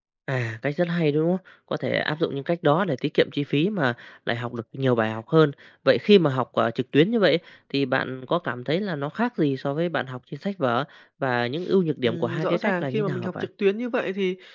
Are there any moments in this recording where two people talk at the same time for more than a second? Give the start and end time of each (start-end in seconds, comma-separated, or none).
12.0-13.3